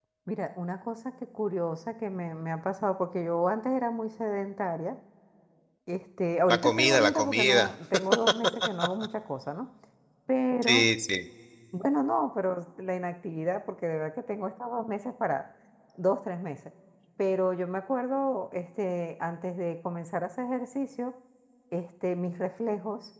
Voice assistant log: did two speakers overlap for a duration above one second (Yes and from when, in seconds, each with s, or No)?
Yes, from 6.5 s